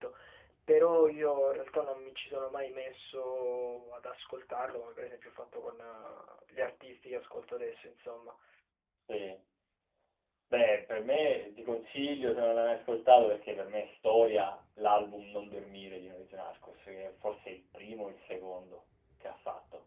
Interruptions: none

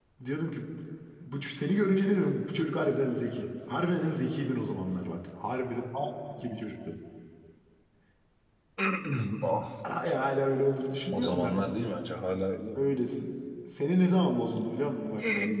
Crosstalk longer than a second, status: none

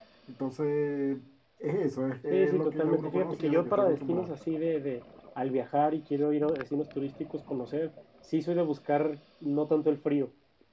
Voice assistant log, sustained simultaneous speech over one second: present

